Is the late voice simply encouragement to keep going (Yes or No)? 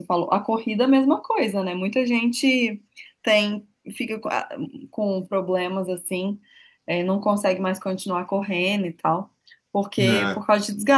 Yes